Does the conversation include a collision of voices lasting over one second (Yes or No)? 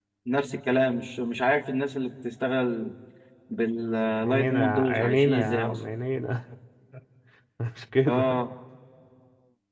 Yes